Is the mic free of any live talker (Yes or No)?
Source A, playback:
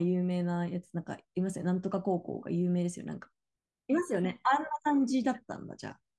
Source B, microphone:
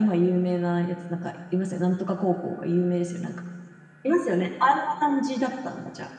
Yes